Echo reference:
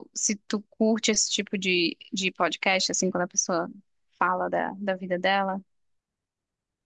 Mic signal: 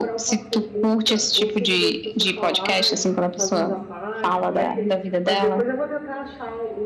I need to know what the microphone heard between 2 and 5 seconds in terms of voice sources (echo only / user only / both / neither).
both